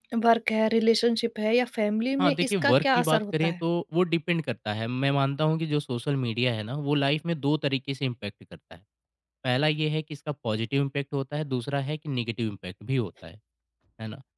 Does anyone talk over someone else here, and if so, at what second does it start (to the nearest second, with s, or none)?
2 s